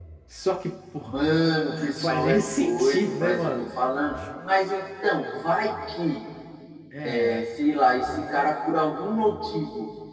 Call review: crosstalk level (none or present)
present